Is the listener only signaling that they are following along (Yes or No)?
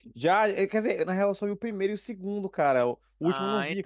No